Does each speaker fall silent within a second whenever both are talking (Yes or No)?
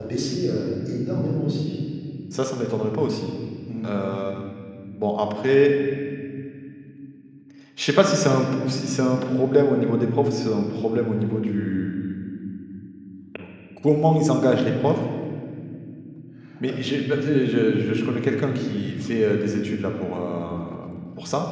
Yes